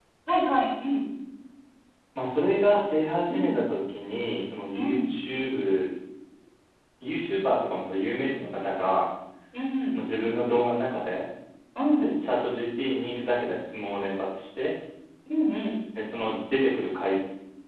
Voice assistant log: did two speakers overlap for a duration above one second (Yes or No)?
No